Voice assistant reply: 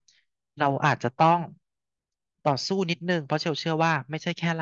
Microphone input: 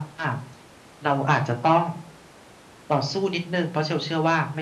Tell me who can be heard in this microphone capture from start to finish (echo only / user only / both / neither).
echo only